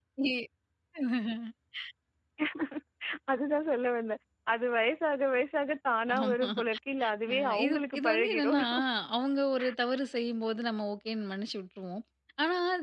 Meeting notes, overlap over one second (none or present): present